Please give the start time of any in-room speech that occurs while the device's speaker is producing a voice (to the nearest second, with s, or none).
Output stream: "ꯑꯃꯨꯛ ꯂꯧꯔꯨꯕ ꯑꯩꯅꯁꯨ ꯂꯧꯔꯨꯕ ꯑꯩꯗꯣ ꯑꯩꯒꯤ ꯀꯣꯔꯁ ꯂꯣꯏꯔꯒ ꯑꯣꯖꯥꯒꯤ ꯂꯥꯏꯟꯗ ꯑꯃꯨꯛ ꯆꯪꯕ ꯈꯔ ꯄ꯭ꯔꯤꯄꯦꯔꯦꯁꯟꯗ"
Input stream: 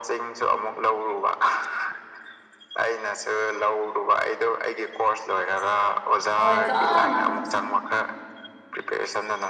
6 s